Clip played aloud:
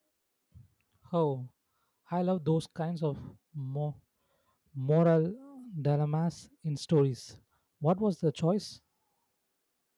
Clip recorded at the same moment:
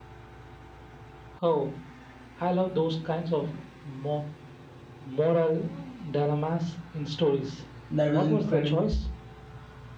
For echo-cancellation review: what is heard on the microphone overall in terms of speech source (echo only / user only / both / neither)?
both